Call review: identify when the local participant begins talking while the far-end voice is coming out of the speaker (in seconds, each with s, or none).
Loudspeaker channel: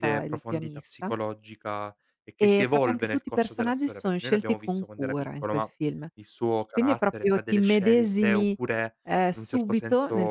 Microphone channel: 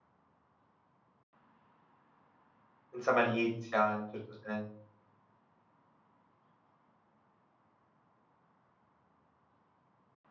2.9 s